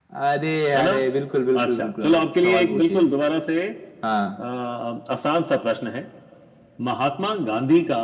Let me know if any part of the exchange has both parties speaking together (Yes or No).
Yes